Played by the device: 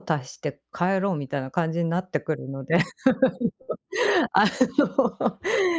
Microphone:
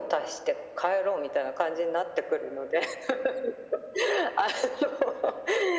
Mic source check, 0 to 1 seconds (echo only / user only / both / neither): echo only